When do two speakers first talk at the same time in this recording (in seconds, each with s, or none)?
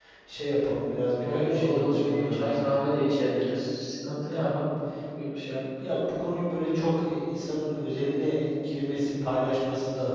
1.2 s